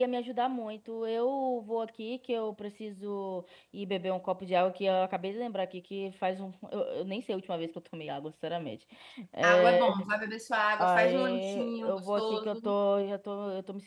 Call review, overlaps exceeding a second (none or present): present